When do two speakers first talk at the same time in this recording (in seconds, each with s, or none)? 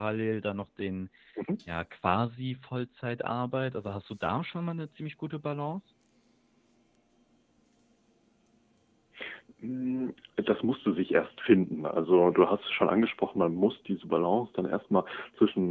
none